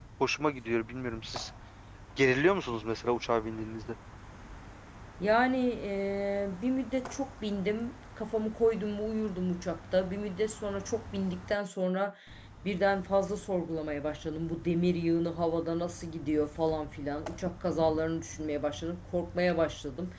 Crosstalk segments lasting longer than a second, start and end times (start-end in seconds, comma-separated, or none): none